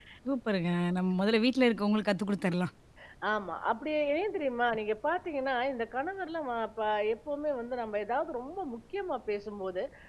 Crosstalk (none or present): none